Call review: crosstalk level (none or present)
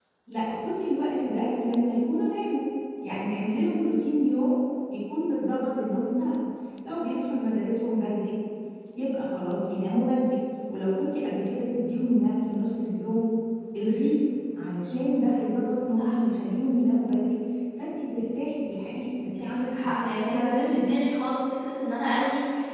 present